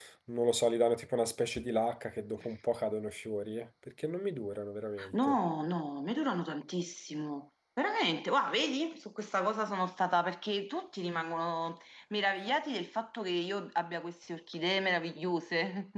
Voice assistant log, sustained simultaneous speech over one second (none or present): none